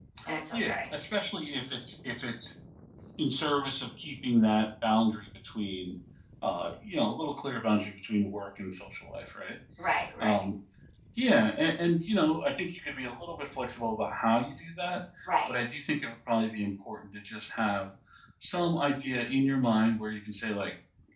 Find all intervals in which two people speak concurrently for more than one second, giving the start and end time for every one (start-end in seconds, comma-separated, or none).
none